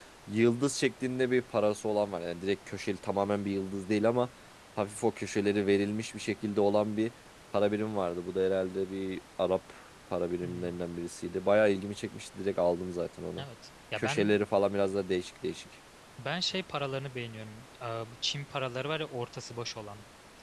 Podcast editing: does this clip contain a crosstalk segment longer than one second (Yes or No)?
No